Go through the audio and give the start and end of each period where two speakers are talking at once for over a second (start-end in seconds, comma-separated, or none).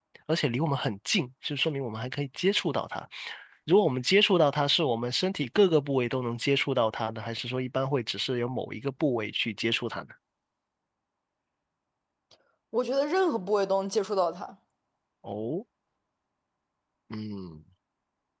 none